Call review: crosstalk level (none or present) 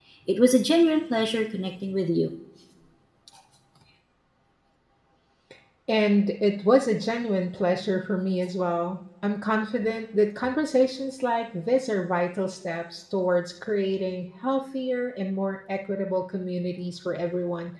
none